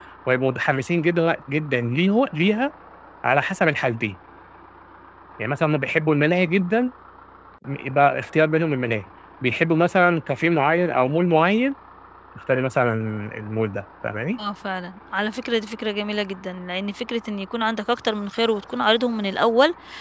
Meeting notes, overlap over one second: none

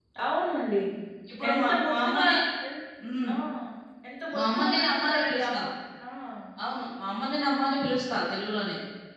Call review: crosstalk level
present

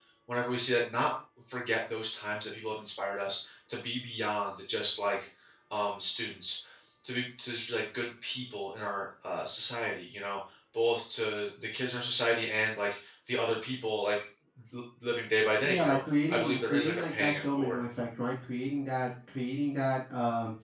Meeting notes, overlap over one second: present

